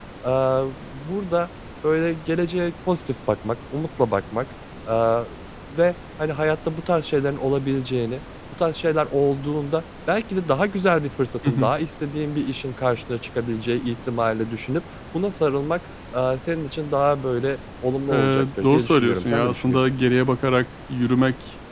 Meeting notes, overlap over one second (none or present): present